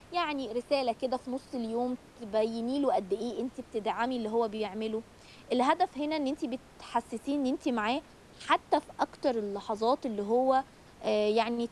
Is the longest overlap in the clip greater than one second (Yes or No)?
No